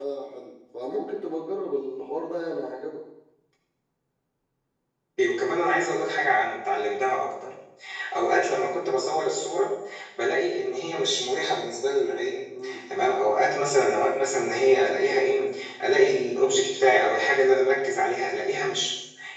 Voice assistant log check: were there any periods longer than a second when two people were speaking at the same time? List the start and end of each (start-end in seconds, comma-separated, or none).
none